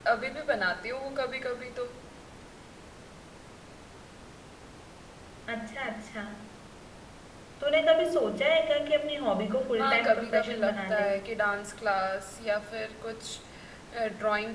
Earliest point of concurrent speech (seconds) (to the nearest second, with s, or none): 10 s